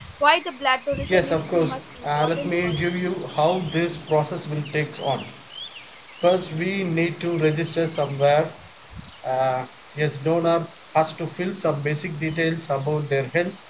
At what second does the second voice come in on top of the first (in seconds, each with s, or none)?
1.1 s